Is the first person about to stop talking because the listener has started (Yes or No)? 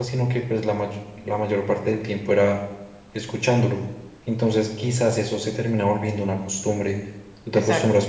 No